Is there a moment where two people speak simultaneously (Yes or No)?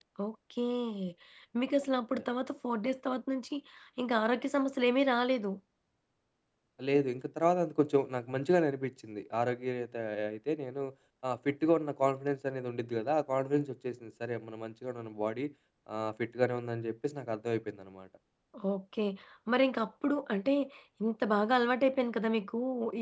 No